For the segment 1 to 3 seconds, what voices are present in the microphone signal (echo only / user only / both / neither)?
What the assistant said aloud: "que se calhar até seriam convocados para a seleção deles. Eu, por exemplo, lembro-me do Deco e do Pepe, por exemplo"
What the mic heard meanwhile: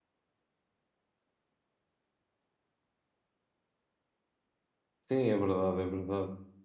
neither